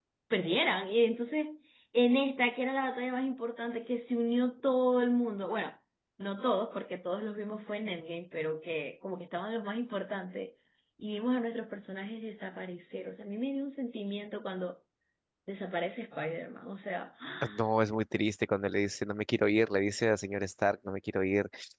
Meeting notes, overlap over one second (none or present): none